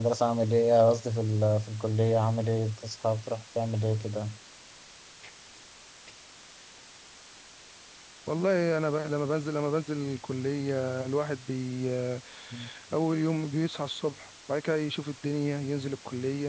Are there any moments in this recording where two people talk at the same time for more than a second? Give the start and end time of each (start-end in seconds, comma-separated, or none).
none